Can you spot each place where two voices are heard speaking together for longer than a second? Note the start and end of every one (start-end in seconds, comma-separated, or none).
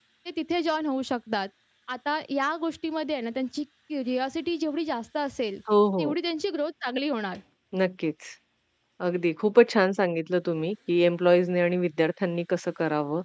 none